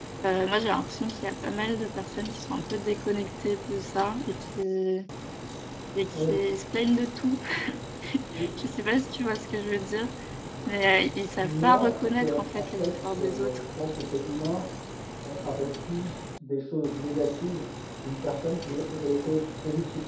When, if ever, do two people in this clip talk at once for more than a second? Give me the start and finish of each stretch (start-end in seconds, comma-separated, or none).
11.4-13.6